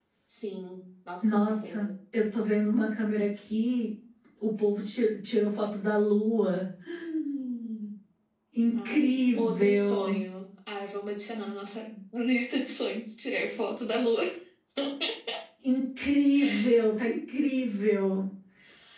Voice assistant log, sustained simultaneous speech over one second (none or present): present